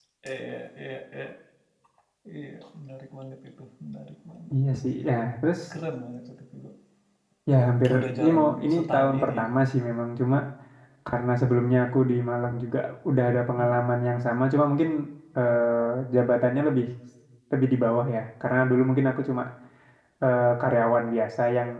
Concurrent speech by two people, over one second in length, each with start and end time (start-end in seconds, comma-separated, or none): 7.9-9.4